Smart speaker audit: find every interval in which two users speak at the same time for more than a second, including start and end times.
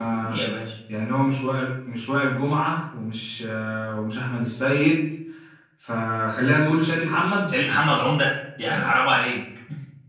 none

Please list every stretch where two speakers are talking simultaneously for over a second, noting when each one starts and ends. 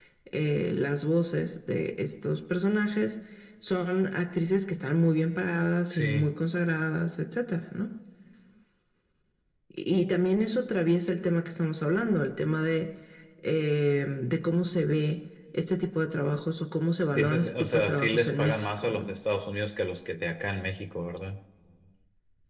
17.1-19.1

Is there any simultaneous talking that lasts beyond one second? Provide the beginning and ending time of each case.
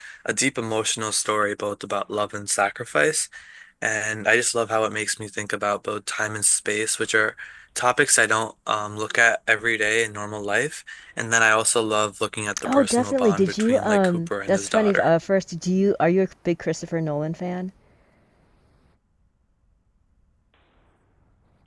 12.7-15.1

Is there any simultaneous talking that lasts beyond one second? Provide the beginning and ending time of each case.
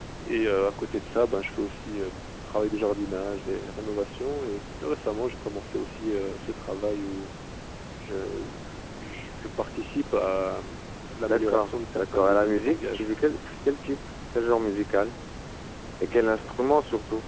11.2-13.0

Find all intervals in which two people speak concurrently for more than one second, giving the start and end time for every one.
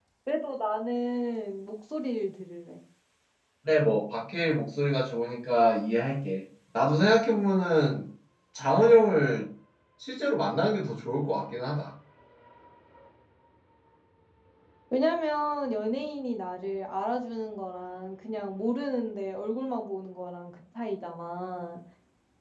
none

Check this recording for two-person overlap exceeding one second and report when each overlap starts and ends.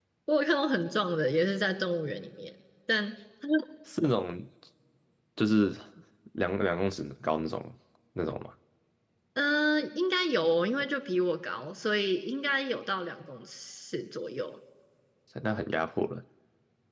none

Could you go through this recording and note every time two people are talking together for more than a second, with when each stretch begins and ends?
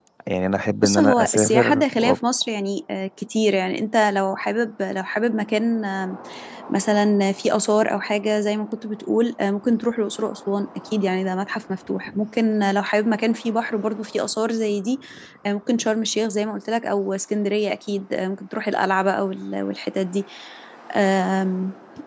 0.8-2.1

